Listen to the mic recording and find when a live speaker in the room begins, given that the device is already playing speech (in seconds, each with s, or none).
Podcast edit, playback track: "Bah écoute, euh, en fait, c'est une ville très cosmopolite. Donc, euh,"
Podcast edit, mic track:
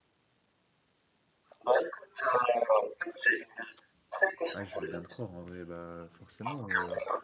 4.5 s